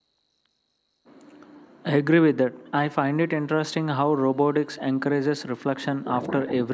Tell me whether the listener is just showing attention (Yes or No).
Yes